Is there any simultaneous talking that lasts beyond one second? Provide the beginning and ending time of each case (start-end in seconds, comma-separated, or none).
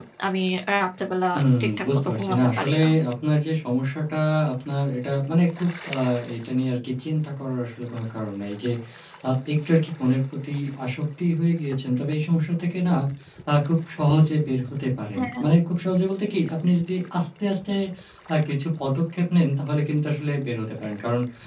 1.6-2.9